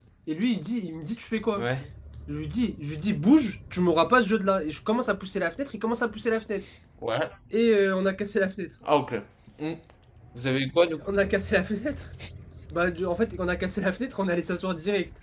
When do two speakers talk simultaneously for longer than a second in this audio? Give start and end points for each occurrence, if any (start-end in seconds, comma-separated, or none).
none